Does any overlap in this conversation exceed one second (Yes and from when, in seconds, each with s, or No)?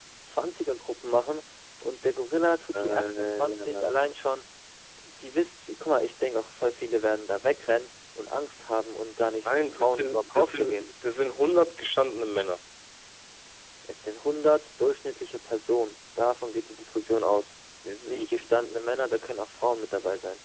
Yes, from 2.7 s